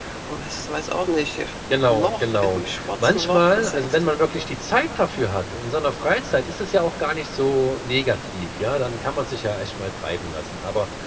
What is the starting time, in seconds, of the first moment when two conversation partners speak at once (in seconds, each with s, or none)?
1.9 s